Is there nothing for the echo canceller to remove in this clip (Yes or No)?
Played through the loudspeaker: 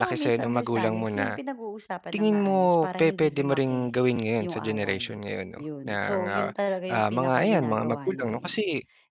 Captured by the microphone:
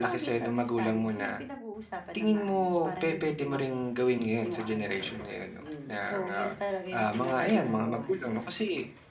No